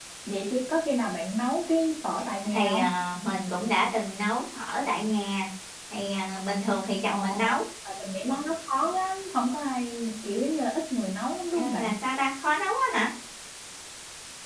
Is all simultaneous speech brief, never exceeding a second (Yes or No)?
Yes